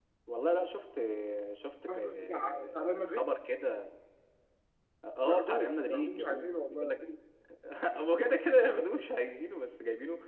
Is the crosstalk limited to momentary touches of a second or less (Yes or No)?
No